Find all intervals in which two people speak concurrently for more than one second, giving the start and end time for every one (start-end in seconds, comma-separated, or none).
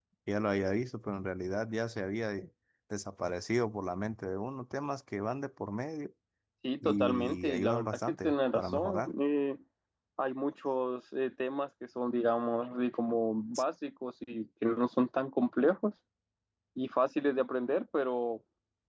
6.8-9.1